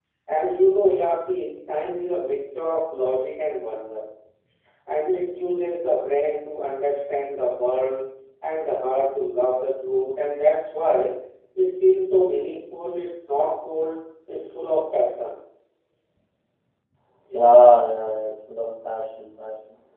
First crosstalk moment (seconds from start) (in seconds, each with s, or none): none